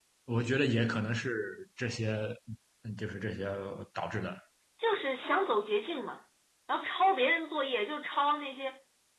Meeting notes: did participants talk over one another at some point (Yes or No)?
No